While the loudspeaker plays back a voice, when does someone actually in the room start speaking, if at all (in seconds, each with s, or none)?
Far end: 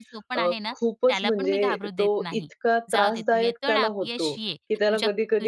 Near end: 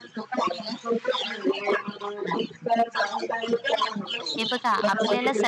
4.4 s